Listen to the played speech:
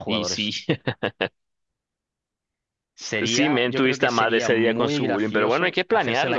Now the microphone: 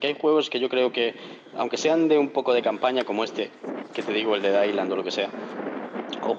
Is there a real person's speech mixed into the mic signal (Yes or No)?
Yes